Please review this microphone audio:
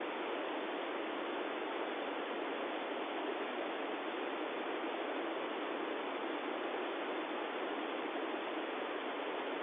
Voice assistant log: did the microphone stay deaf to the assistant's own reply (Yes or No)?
Yes